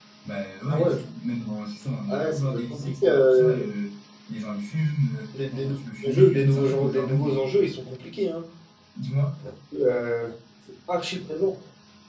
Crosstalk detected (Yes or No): Yes